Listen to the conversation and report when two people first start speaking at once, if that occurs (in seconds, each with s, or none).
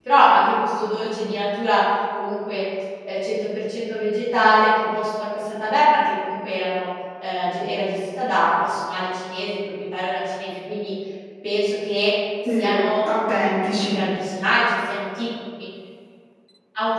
12.4 s